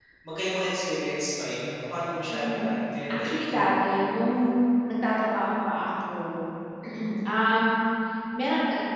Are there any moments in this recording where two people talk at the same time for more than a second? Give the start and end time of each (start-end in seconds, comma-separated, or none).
none